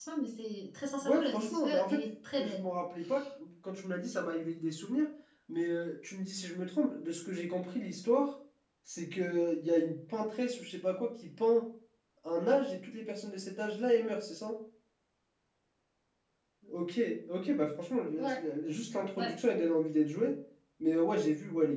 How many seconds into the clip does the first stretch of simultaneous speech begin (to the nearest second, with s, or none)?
1 s